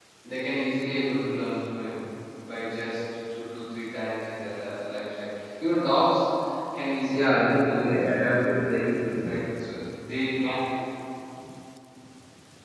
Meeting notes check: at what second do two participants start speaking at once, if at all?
7.1 s

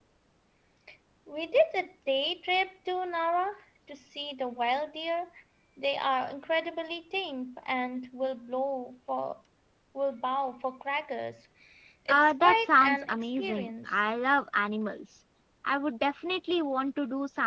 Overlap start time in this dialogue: 12.1 s

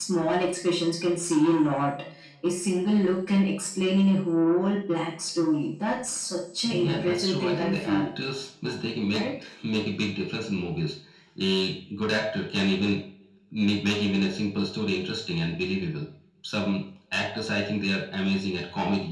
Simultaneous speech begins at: 6.6 s

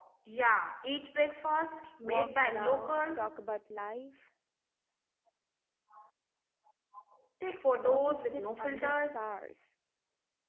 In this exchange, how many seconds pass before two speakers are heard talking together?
2.0 s

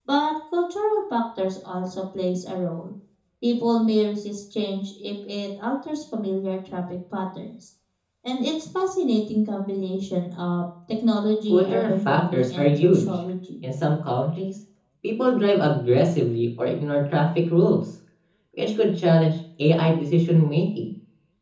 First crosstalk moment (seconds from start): 11.5 s

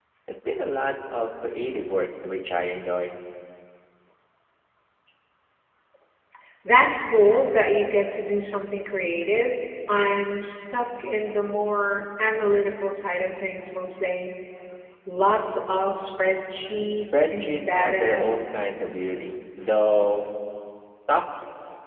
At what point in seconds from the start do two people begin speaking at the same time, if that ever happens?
17.0 s

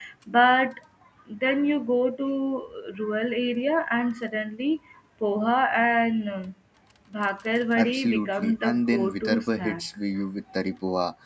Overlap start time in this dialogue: 7.8 s

